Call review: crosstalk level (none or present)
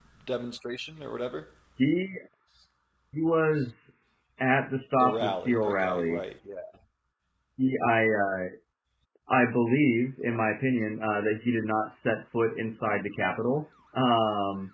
present